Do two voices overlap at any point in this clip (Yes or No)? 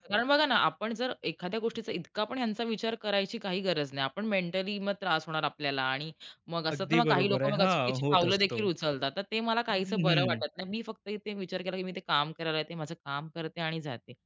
Yes